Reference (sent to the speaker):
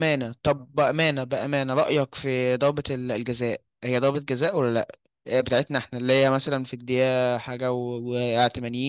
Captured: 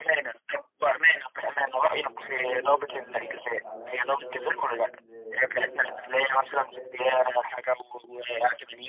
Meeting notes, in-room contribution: present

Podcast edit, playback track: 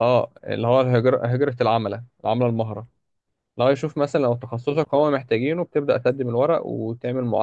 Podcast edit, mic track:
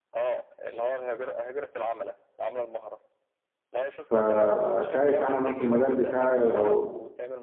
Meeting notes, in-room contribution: present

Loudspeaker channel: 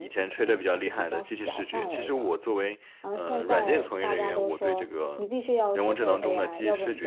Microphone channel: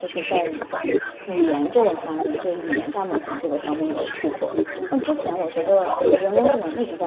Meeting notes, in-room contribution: present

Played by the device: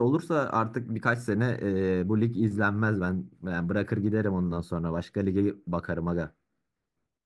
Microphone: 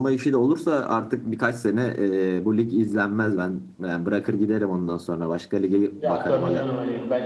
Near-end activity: present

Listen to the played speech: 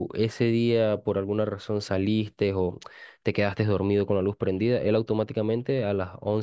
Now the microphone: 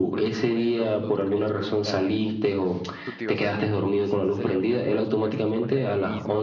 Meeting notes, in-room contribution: present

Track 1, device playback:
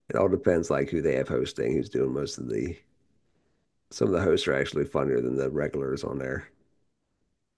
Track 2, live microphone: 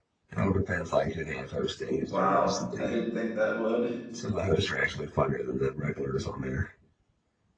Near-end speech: present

